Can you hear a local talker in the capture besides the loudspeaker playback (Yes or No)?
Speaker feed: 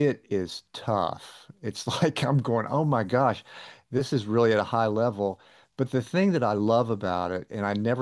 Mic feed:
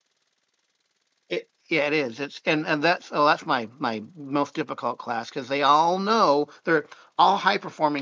Yes